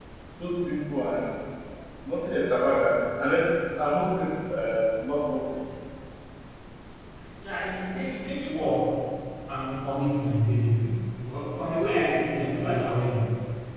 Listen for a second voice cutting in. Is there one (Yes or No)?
No